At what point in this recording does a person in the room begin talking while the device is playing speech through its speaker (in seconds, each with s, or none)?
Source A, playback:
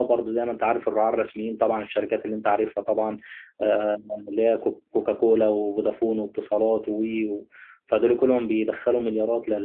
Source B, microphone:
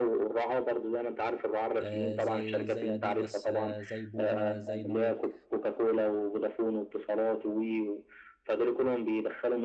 1.8 s